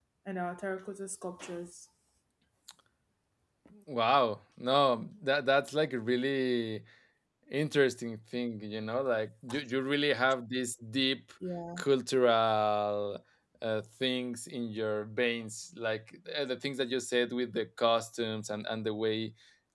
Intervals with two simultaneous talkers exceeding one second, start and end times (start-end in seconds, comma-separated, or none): none